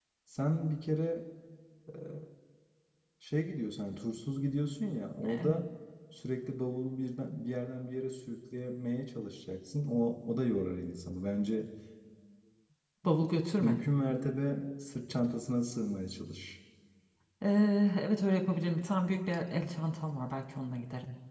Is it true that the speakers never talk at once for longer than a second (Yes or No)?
Yes